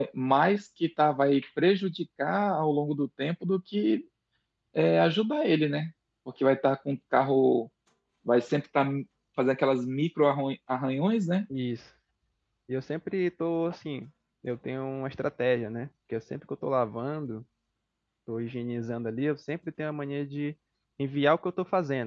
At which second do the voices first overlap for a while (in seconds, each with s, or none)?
none